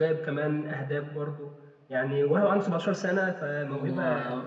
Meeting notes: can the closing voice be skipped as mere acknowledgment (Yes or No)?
No